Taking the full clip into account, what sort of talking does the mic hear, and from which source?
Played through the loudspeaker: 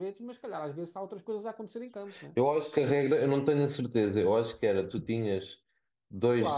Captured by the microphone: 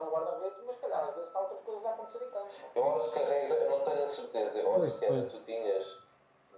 both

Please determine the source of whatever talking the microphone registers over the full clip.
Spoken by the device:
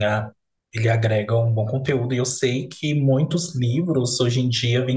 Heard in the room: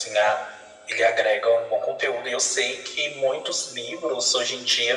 echo only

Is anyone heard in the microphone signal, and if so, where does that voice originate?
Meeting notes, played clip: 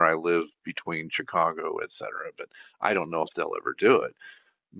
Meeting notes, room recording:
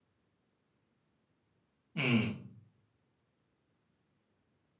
user only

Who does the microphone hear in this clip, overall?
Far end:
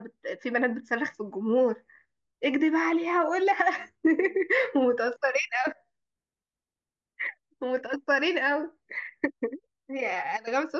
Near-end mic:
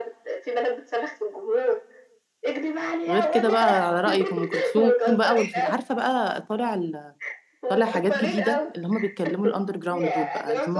both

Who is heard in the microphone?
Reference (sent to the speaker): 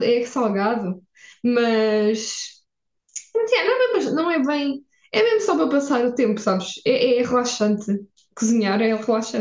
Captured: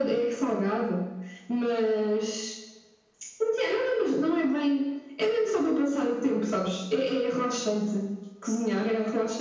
echo only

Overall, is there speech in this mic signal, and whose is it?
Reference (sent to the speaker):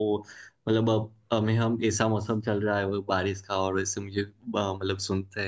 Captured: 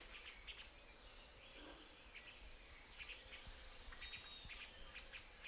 neither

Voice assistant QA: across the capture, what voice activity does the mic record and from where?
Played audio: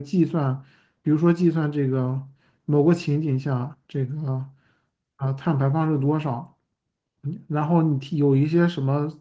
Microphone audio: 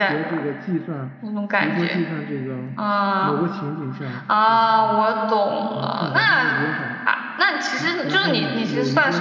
both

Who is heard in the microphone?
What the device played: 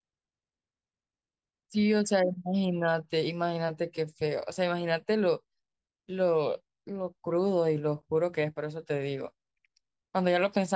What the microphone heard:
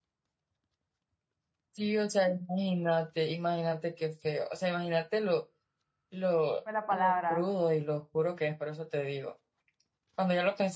both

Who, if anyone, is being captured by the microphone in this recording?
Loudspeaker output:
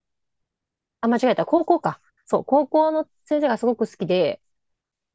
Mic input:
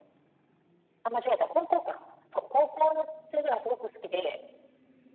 echo only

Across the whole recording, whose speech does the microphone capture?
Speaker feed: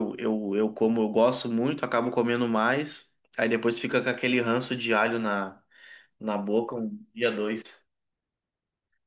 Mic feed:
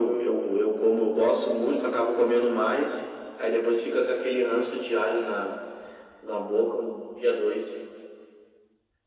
echo only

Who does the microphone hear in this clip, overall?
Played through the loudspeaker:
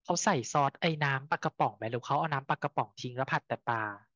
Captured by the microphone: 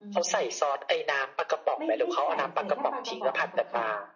both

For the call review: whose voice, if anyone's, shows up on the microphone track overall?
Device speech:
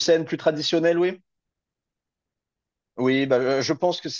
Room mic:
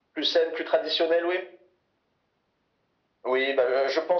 echo only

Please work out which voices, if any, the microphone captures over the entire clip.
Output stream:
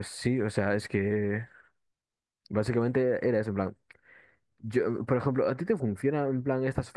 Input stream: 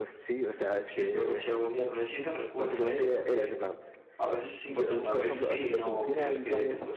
both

